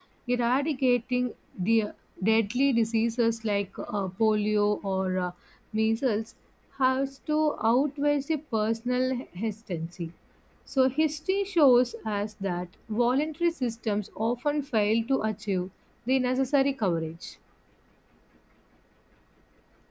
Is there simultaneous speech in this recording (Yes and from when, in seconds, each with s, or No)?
No